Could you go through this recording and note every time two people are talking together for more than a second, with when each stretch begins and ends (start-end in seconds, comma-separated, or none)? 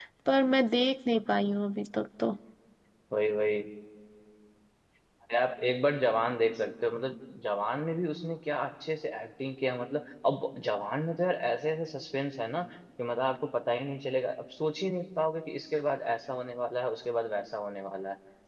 none